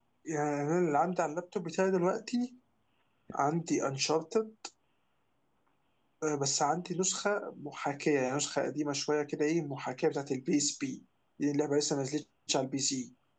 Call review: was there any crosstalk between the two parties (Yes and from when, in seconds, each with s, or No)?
No